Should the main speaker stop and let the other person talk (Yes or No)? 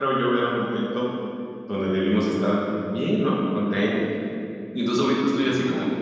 No